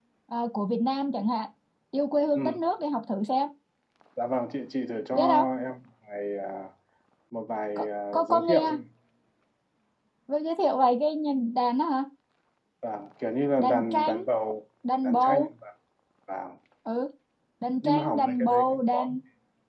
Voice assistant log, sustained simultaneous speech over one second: present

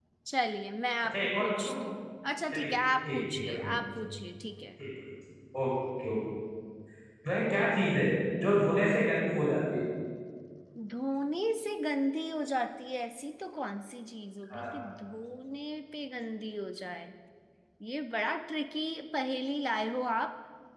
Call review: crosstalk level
present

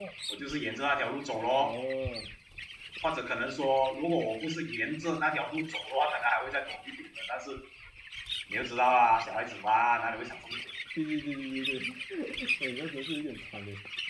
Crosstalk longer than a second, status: none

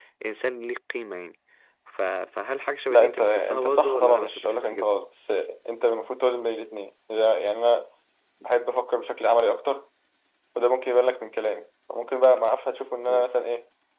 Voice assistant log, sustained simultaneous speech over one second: present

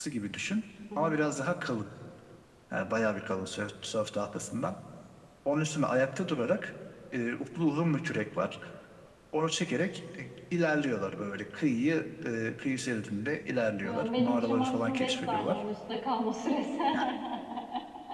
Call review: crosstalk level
present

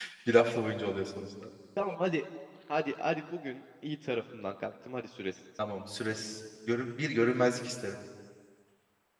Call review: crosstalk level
none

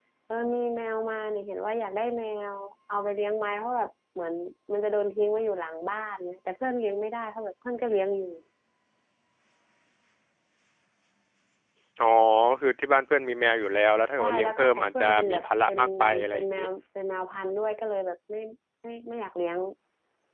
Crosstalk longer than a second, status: present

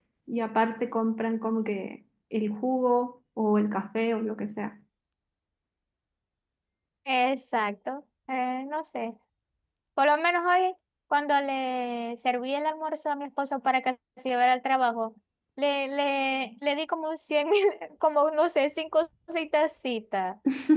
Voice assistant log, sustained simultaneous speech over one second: none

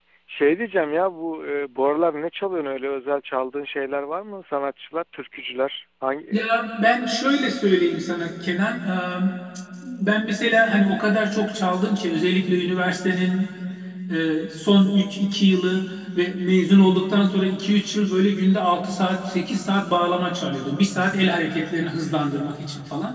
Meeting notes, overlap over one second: none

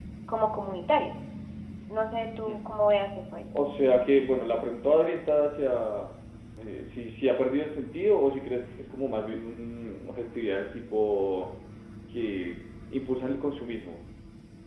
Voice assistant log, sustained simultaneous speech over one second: none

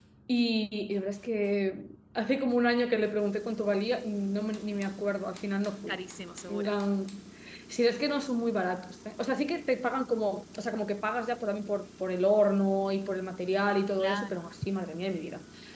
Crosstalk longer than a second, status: none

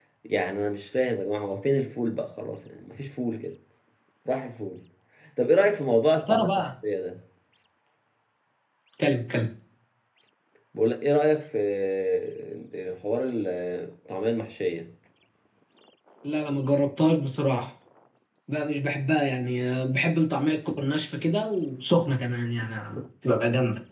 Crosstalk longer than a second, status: none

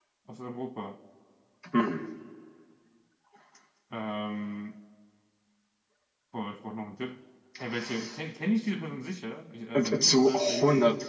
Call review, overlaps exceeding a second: present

